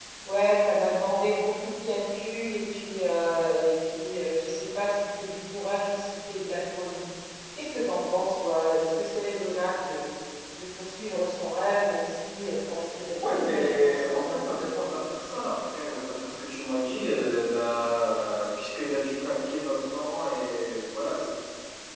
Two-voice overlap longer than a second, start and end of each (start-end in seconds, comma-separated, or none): 13.1-14.4